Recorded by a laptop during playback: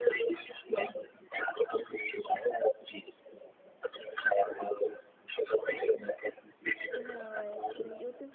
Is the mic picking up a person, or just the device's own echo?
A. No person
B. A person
B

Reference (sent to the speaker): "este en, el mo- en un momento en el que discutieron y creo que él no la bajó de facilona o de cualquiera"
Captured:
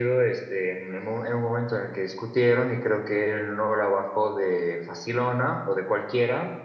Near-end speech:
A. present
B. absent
B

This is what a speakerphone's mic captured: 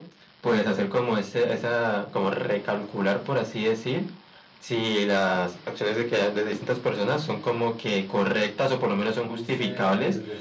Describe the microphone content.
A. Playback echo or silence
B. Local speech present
B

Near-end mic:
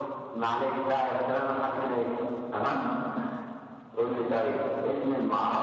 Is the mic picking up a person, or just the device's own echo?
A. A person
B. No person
B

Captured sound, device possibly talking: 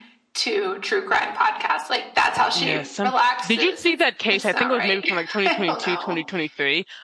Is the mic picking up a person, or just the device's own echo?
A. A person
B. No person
A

